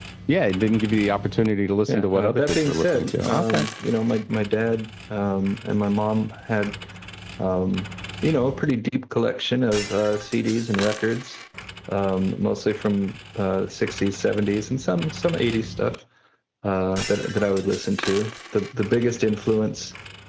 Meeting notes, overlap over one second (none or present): present